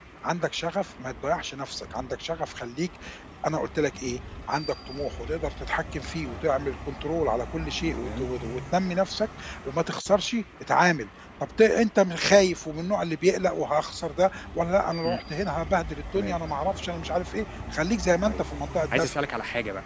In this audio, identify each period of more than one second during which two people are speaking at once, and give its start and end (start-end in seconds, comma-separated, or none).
none